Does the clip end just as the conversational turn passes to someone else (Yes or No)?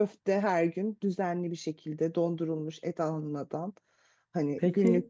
Yes